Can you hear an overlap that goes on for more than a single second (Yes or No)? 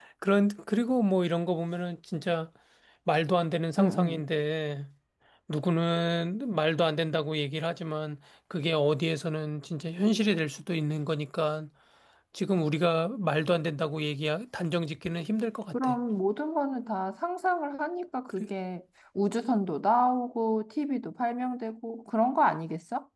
No